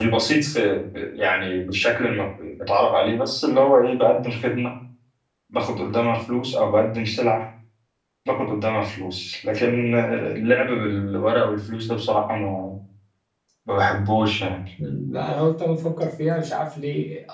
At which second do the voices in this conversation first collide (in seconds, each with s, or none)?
none